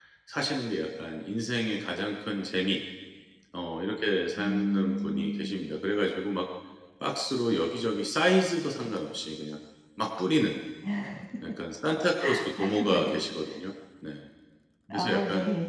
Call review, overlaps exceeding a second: present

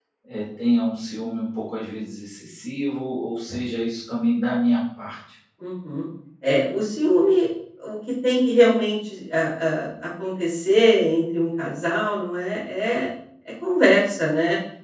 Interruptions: none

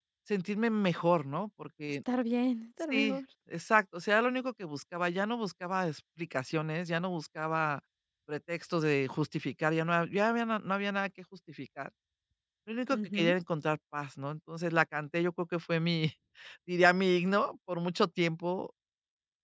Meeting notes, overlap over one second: none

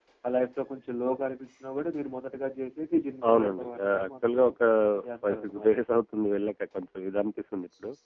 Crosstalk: present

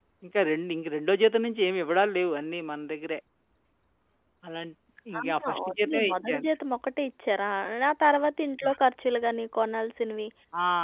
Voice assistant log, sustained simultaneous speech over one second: present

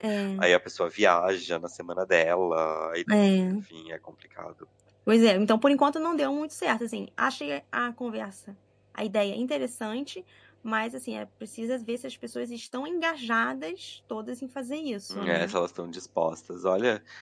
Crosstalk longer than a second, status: none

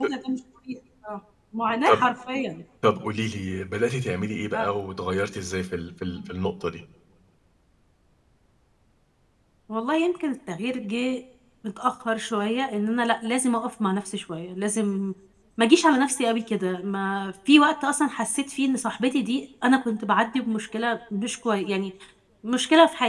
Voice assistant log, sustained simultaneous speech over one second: none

